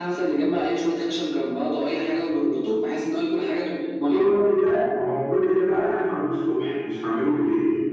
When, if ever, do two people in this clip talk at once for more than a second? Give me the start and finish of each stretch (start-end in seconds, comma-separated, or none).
none